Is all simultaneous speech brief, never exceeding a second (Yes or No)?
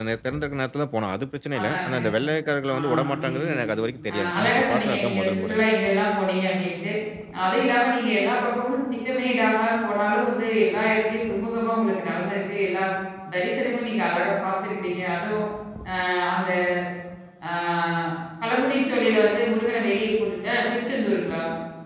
No